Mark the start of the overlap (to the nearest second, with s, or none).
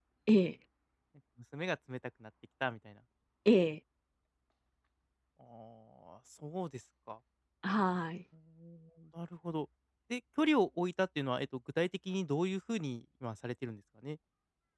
none